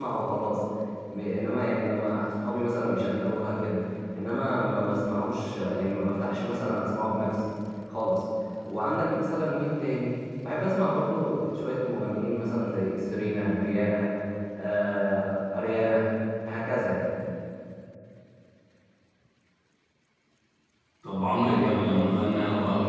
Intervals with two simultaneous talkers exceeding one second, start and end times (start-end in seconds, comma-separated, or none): none